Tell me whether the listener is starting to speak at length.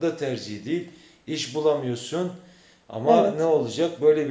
No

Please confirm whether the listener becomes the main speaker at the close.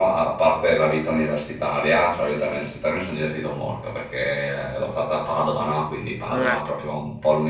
No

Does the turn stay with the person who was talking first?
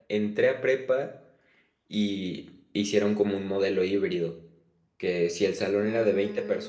Yes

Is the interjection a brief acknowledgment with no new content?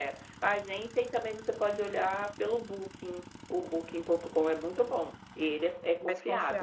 Yes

